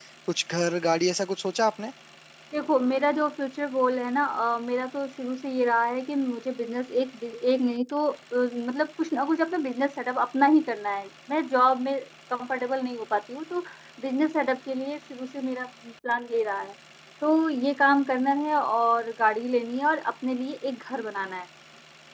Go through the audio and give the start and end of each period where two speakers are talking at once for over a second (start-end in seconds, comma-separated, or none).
none